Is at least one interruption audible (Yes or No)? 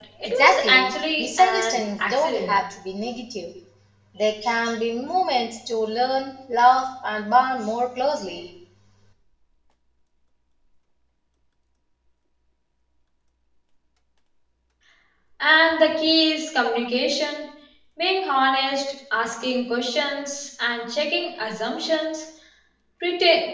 Yes